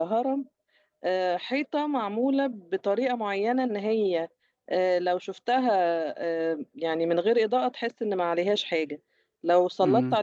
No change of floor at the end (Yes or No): Yes